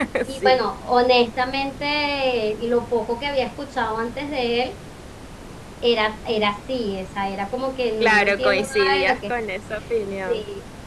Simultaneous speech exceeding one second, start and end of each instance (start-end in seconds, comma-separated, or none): 8.0-9.3